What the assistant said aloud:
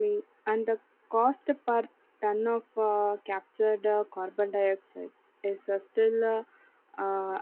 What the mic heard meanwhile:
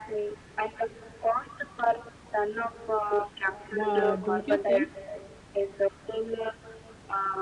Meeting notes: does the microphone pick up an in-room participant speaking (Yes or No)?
Yes